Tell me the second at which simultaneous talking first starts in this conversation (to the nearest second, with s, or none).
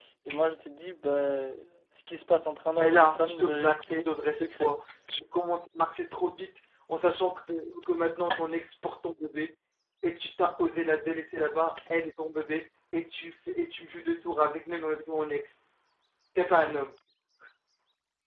3 s